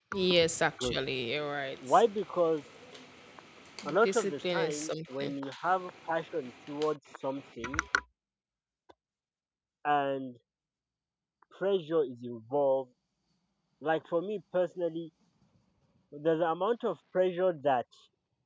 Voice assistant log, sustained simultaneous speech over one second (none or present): present